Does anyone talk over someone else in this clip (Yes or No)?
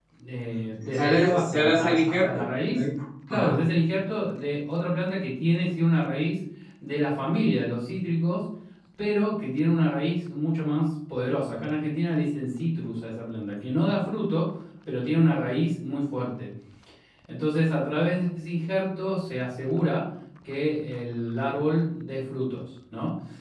Yes